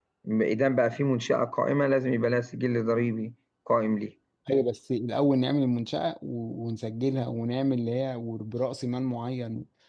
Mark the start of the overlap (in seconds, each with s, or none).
none